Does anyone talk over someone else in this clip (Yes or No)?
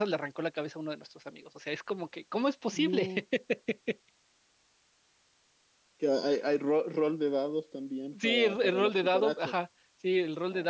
Yes